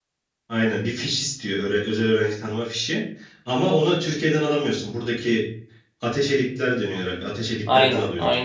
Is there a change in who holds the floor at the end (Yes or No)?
Yes